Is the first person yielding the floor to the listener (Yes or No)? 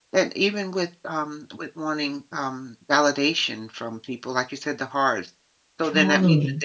No